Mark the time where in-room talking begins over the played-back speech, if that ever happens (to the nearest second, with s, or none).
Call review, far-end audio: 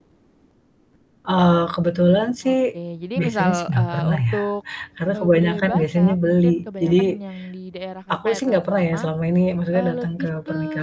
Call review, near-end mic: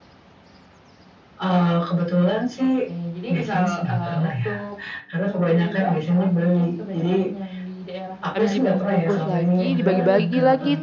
8 s